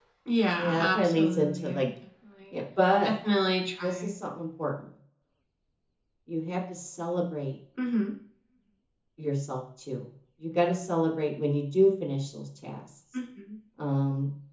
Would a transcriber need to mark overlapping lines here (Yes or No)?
Yes